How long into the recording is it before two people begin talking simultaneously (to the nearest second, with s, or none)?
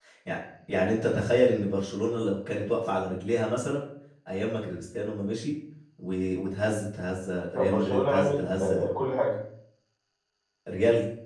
8 s